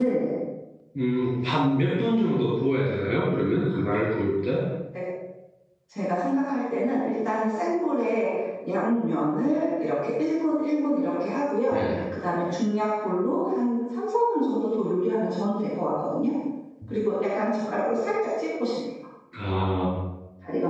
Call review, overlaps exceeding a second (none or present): none